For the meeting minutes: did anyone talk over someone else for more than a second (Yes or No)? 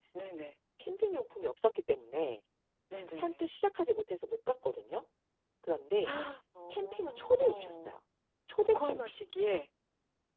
Yes